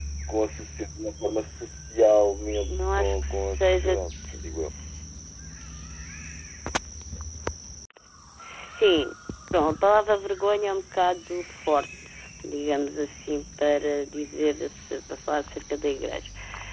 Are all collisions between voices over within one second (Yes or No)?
No